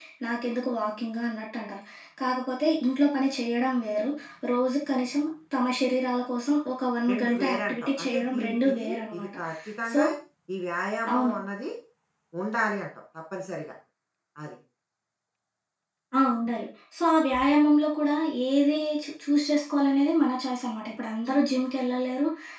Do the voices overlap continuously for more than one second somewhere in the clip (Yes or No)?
Yes